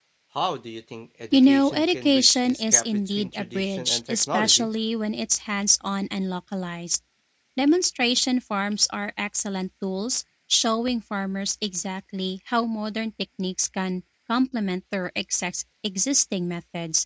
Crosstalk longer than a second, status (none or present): present